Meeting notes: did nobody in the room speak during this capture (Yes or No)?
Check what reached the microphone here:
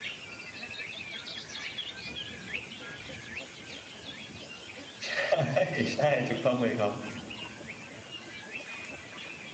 No